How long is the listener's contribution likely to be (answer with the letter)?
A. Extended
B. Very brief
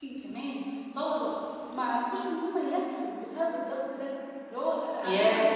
A